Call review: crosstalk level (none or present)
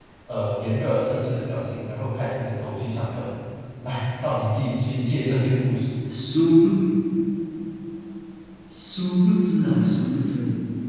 none